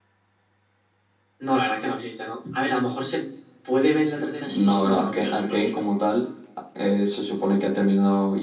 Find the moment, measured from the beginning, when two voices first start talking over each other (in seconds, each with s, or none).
4.5 s